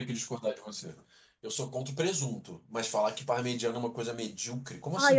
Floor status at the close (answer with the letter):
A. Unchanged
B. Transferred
B